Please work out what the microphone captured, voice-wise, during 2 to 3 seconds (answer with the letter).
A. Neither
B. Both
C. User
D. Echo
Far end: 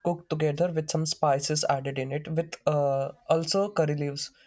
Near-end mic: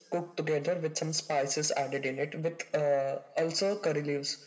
D